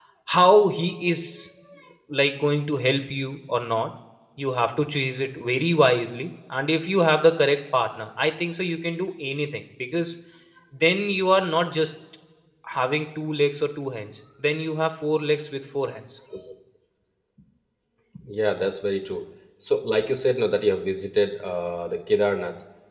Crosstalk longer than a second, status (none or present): none